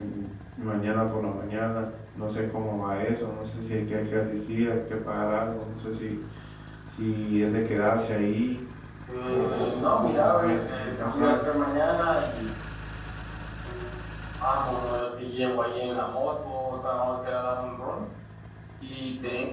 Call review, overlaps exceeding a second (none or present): present